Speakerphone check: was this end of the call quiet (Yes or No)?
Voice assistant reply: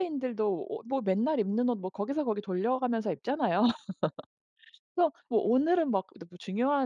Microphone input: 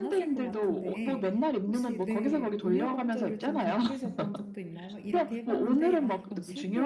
No